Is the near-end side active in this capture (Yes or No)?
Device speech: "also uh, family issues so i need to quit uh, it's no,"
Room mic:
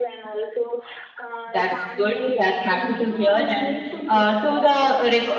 Yes